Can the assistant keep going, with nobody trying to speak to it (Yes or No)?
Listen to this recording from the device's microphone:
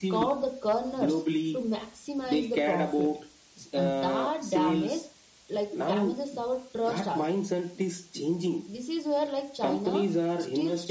No